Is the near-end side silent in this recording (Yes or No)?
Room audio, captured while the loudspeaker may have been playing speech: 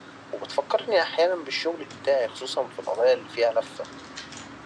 Yes